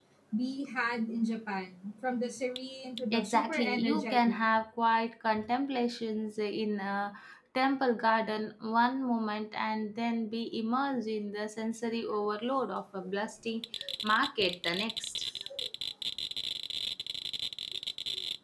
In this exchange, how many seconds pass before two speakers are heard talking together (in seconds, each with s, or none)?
3.1 s